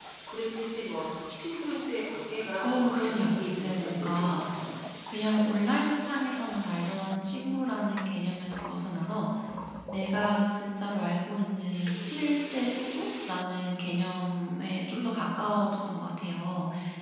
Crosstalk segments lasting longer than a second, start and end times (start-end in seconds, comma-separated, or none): 2.6-4.4